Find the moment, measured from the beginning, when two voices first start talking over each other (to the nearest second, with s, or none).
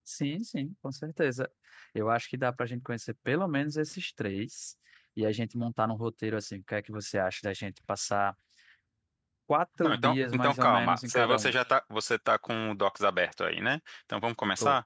10 s